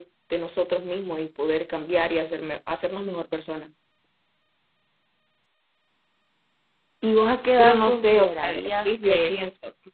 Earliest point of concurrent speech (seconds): 7.6 s

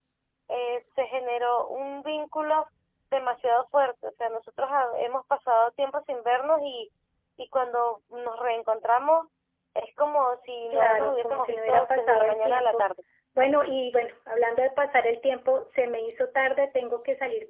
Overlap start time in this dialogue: 10.7 s

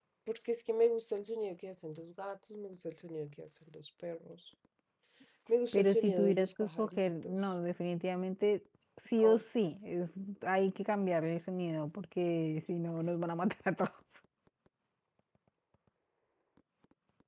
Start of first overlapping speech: 5.7 s

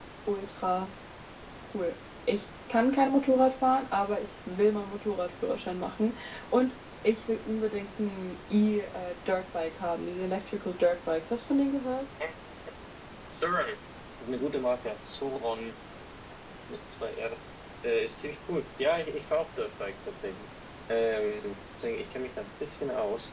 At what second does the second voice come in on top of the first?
none

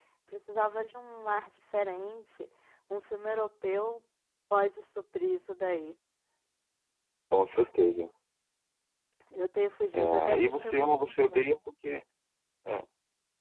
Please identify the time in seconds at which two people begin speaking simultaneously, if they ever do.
9.9 s

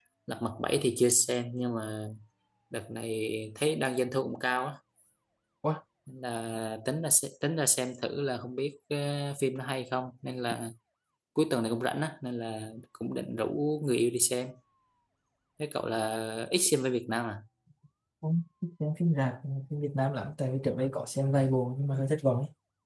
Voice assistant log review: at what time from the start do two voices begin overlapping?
none

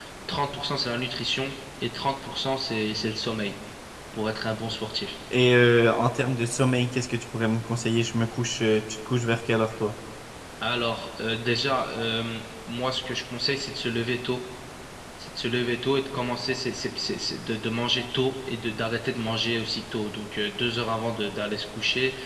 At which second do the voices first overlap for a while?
none

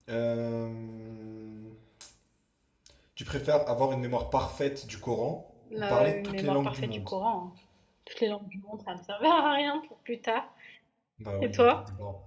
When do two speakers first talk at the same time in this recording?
5.8 s

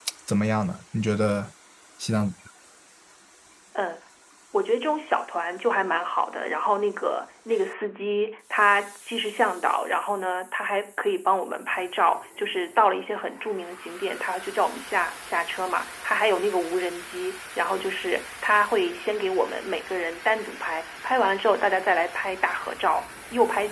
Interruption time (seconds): none

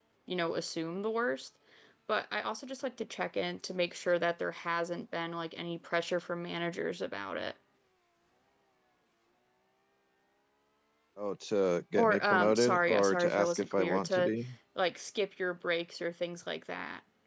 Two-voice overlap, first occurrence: 12.0 s

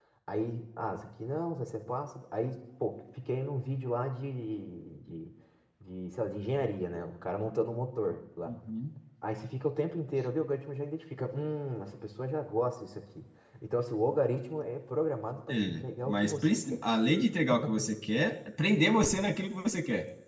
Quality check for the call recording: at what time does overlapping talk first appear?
15.5 s

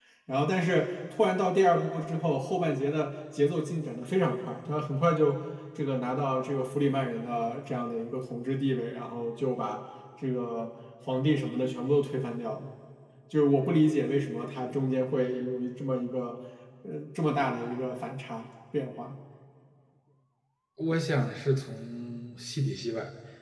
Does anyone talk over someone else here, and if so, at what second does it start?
none

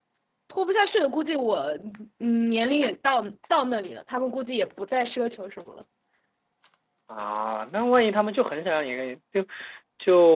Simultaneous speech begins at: none

